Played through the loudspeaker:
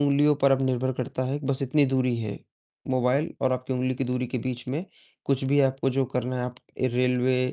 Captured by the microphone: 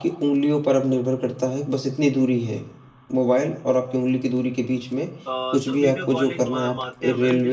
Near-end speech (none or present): present